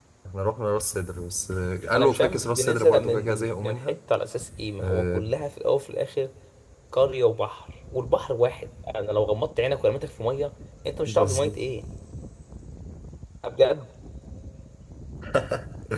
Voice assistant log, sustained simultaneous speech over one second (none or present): present